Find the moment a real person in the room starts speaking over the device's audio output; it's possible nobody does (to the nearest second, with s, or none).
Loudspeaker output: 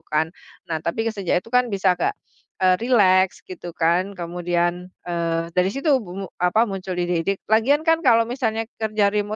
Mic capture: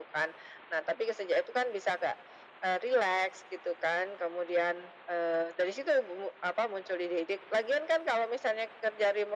none